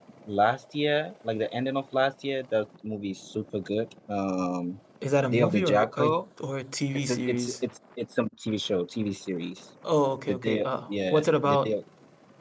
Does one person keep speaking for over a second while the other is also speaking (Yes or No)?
Yes